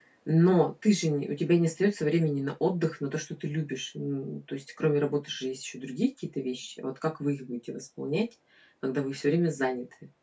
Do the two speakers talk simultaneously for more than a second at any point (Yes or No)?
No